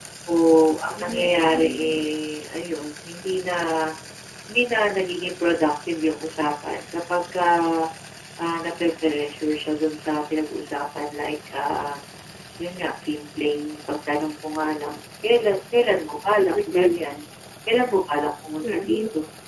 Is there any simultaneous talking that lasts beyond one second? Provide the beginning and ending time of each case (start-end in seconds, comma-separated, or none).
0.8-2.0